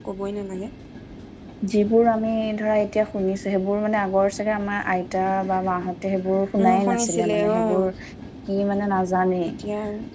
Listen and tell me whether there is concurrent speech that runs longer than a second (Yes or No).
Yes